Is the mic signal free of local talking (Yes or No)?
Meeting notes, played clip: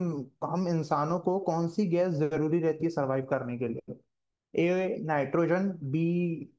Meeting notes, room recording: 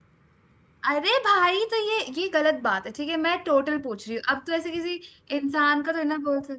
No